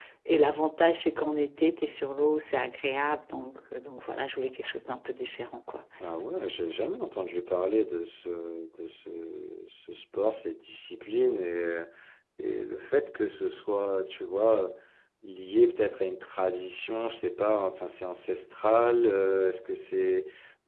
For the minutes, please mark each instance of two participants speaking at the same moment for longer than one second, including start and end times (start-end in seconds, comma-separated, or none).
none